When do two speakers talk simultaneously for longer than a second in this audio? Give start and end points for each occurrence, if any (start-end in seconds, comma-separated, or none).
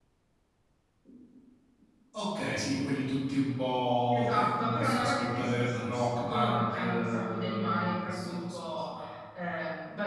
4.0-8.8